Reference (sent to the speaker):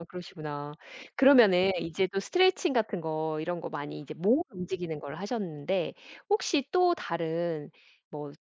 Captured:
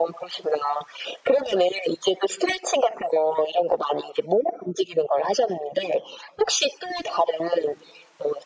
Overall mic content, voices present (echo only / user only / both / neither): echo only